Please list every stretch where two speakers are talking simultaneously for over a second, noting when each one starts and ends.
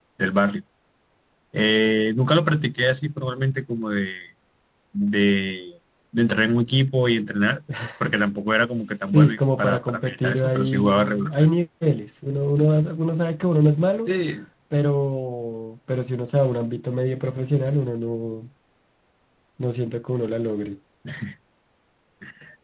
9.1-11.3

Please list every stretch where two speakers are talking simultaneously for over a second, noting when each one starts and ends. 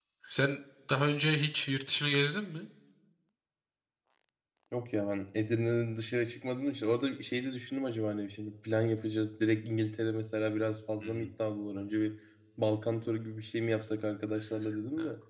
none

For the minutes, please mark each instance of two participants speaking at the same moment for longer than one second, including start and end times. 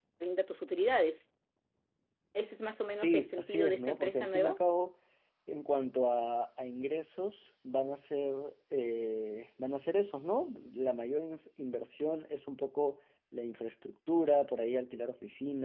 2.9-4.6

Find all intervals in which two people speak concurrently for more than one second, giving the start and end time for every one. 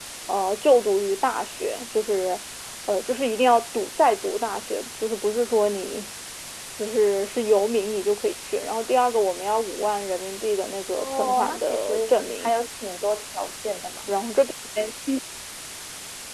11.0-12.5

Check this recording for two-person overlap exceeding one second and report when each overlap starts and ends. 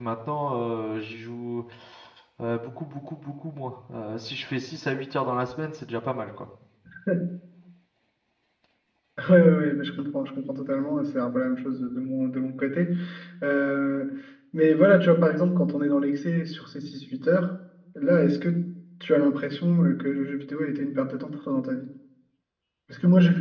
none

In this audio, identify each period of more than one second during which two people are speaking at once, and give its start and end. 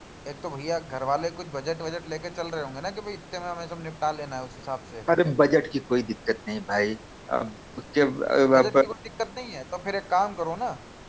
none

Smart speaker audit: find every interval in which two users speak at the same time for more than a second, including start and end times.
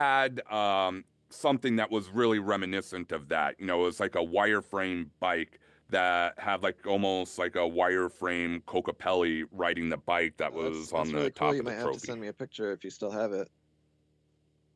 10.5-12.1

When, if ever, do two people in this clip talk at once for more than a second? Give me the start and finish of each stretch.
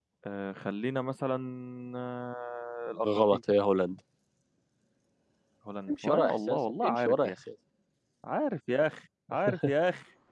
5.9-7.3

